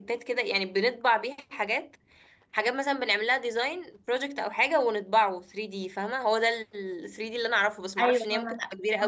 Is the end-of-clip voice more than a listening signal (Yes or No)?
Yes